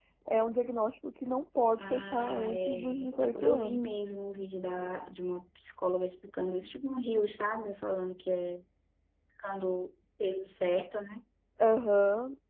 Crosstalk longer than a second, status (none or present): present